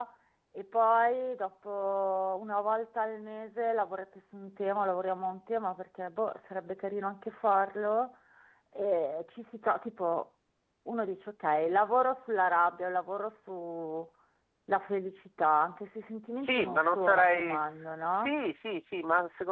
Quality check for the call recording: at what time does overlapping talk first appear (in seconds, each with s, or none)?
16.4 s